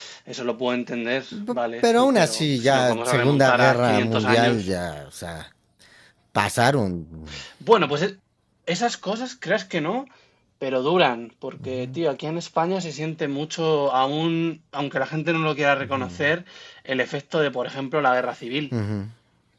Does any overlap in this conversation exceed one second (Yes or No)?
Yes